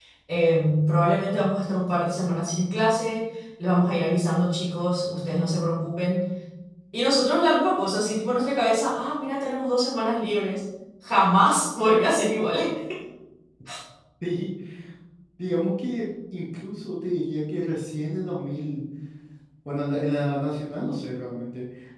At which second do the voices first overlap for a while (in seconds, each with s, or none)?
none